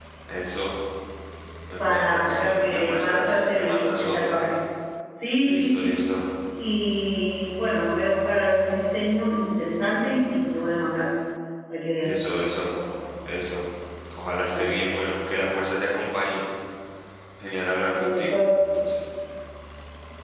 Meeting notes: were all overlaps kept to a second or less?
No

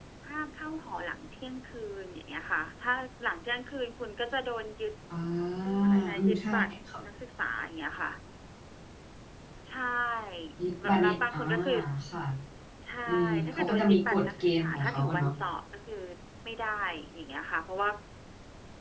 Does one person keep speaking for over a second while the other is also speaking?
Yes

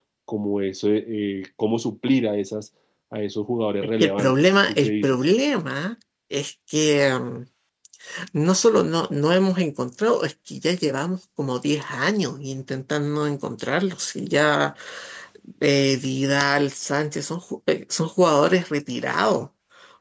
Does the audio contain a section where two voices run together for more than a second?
Yes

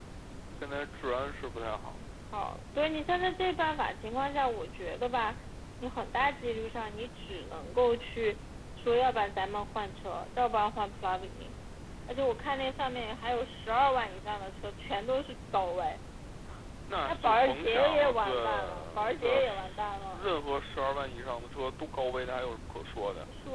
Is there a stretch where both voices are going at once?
Yes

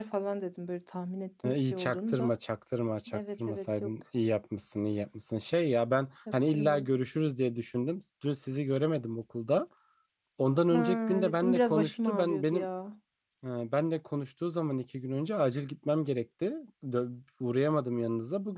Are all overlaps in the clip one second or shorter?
No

